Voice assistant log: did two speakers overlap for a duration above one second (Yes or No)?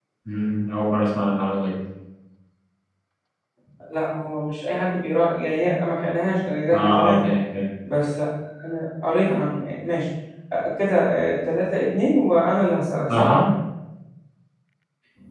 No